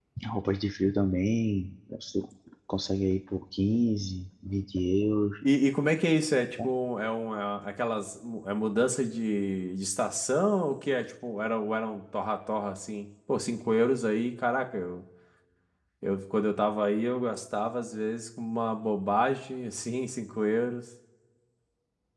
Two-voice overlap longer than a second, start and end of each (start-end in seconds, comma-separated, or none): none